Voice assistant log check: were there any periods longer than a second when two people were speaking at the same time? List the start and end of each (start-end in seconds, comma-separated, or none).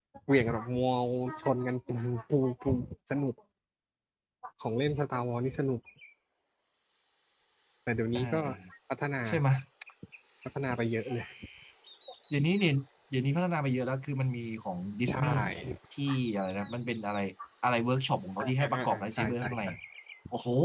18.4-19.6